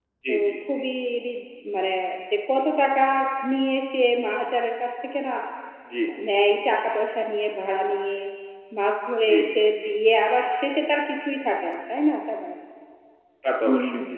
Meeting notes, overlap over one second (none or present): none